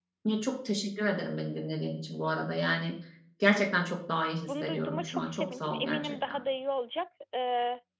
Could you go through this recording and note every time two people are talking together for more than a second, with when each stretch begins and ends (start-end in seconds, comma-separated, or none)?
4.5-6.4